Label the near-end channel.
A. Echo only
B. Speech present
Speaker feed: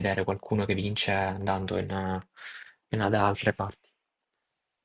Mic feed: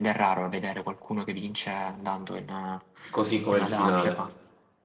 B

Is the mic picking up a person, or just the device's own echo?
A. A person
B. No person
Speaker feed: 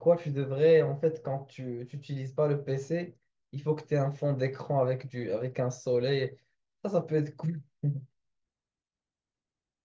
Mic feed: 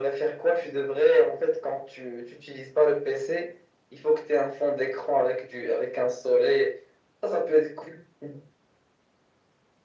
B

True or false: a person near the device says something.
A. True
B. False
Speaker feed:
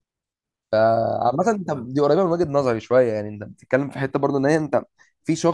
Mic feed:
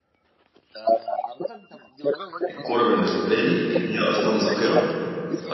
A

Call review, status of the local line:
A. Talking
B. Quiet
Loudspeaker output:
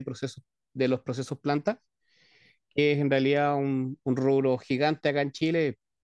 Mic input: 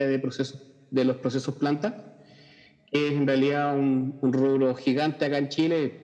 B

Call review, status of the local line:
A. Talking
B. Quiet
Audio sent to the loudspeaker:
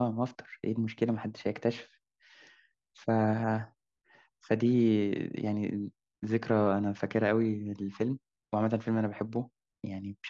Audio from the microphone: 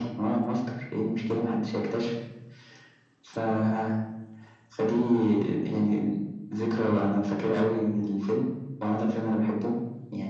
B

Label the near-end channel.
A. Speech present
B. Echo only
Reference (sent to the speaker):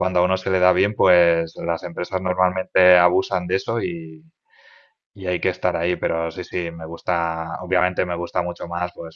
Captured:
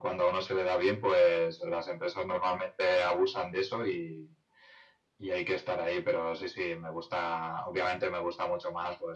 B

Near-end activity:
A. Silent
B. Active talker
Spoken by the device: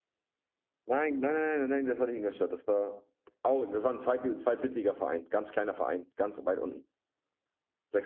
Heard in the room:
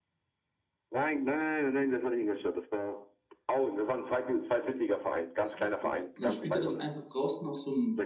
B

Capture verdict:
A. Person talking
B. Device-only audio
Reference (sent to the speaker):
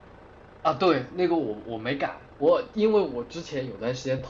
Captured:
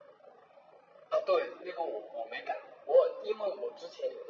B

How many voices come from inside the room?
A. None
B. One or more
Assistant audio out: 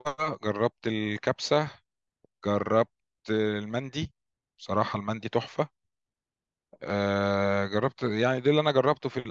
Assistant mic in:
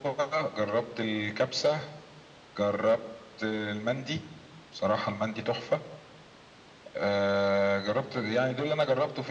A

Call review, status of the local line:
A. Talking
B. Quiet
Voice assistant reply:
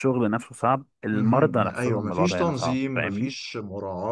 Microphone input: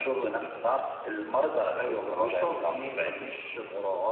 B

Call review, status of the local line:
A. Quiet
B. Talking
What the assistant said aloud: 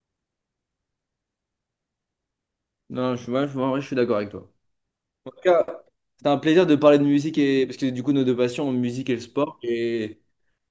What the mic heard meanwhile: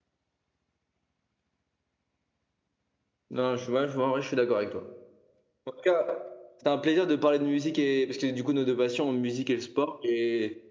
A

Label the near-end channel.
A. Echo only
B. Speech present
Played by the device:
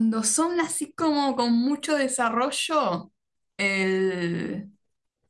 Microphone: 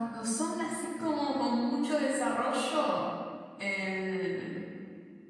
A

